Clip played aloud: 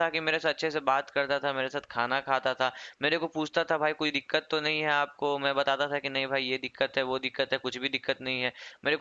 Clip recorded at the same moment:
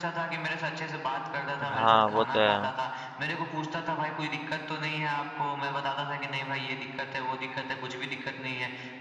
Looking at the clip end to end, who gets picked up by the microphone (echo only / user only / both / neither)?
both